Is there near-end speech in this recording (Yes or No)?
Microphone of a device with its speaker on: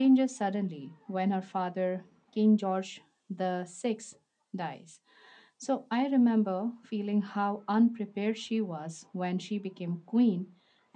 No